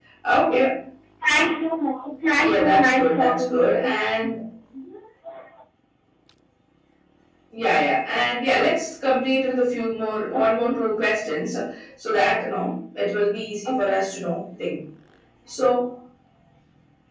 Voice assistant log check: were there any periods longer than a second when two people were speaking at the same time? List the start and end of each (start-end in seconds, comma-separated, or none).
2.4-3.9